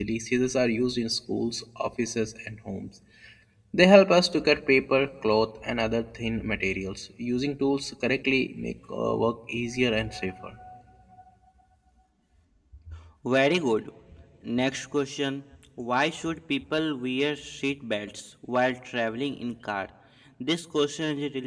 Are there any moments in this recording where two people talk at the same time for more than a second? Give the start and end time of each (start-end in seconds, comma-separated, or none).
none